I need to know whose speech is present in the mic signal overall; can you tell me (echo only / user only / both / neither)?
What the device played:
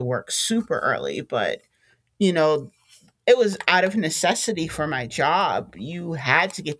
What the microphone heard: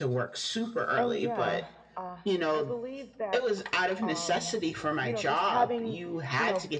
both